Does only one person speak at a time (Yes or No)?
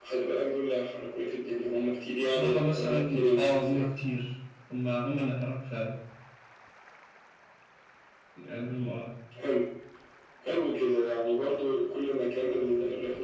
No